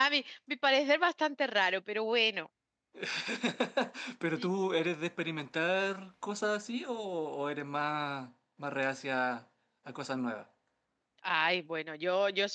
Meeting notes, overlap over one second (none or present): none